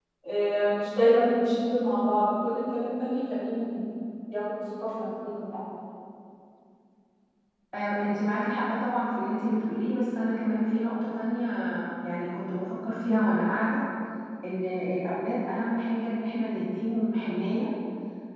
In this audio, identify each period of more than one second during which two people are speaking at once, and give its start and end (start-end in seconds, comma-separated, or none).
none